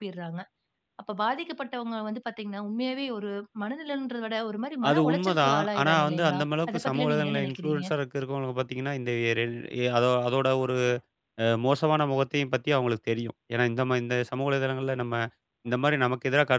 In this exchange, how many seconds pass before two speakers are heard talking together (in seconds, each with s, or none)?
4.8 s